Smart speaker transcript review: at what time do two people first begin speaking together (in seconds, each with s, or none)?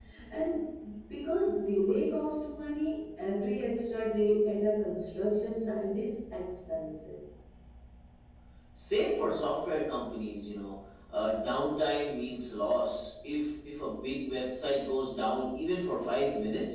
none